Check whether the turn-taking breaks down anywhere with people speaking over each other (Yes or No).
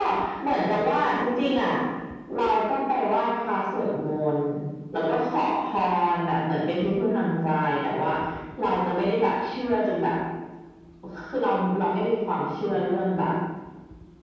No